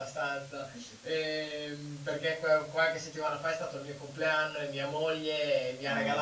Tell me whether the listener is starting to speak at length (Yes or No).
No